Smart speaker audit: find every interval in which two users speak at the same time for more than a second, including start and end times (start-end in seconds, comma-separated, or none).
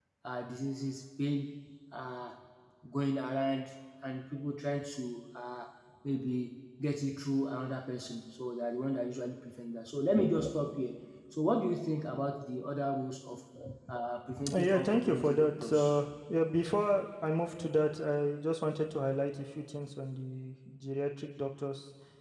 14.5-16.0